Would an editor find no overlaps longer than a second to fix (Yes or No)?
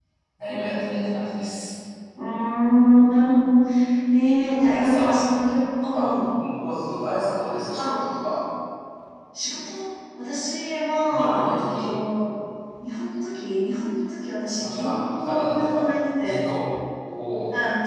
No